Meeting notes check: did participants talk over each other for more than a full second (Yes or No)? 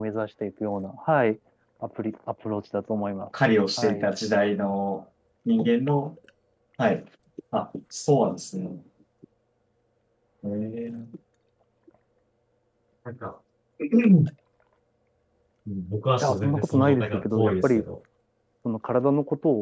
Yes